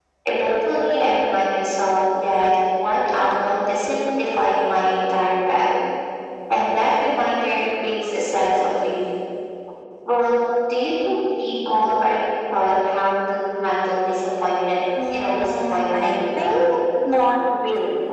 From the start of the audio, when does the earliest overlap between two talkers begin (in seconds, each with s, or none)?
15.0 s